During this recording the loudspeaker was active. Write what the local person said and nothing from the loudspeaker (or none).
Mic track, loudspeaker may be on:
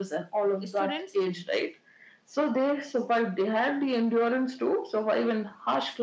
students